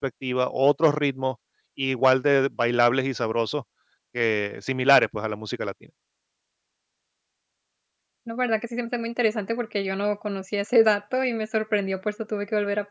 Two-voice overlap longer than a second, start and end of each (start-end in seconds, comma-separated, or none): none